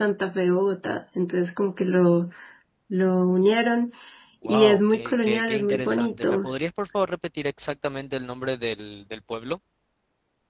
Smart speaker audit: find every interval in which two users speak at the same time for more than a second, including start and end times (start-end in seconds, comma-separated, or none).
4.5-6.5